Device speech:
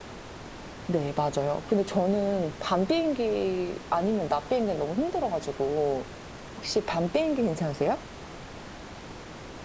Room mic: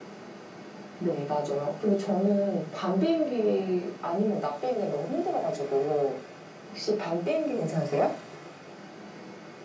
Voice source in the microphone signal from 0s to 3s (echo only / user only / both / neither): echo only